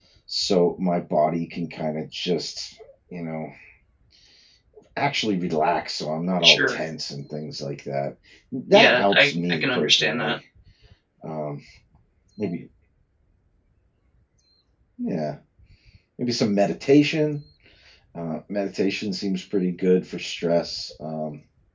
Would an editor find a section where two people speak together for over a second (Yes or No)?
Yes